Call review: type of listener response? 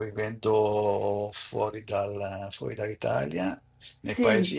listening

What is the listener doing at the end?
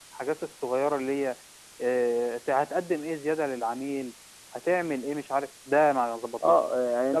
taking over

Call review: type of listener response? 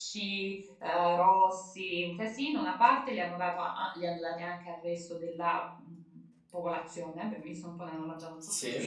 listening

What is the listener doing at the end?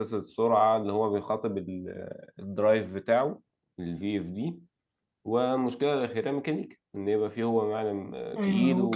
taking over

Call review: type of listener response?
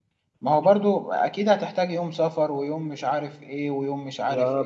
taking over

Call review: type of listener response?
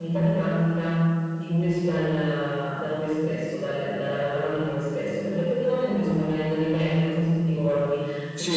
taking over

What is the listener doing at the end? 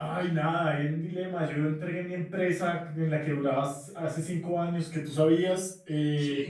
listening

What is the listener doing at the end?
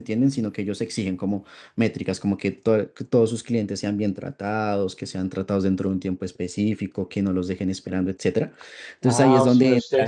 taking over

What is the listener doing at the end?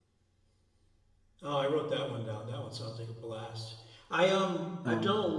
listening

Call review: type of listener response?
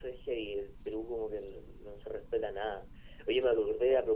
listening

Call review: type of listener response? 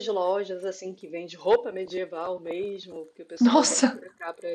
listening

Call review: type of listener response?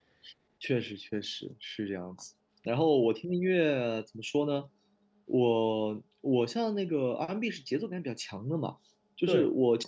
listening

